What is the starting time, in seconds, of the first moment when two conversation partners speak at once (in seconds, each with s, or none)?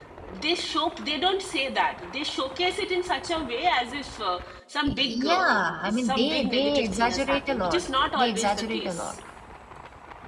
4.8 s